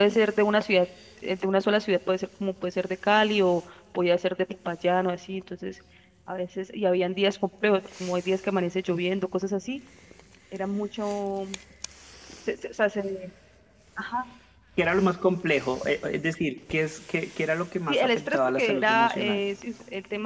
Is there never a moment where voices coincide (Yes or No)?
No